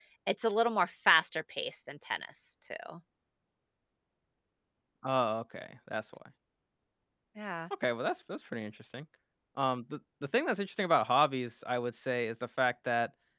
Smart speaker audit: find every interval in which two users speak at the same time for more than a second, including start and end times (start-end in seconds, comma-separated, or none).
none